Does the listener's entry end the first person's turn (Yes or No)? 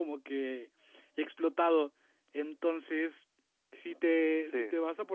No